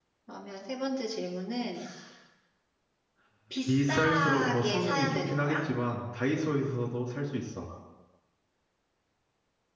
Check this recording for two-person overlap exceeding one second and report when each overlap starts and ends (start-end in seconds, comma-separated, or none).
3.7-5.6